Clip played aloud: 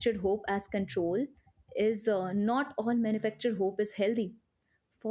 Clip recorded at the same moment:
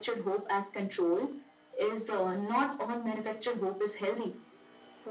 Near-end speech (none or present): none